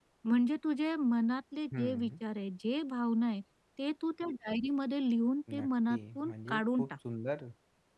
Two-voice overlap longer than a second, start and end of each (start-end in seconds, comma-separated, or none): 5.6-6.9